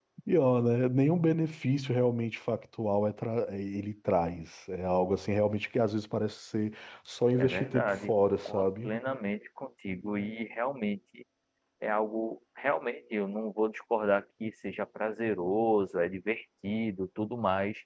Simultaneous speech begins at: 7.4 s

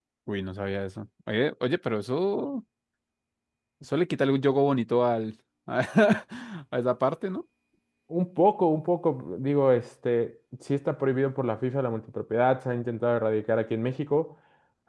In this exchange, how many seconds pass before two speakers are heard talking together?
none

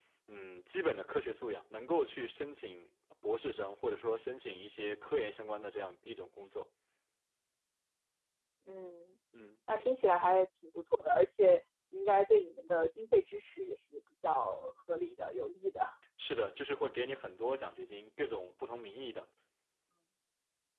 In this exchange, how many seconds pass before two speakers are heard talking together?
none

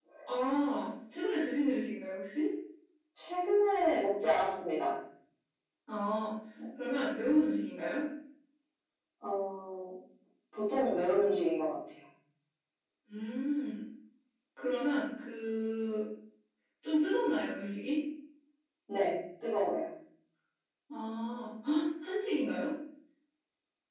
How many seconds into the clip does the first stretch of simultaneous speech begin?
none

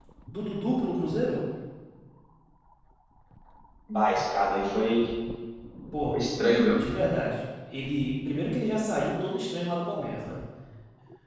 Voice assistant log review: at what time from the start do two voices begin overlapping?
none

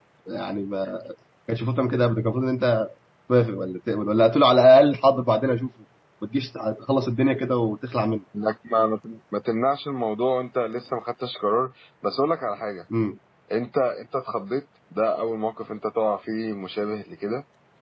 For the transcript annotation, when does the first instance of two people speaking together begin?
none

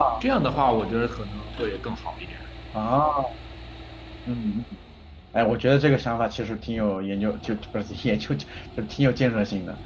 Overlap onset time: none

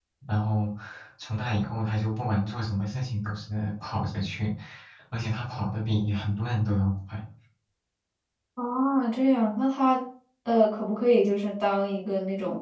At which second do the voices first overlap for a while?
none

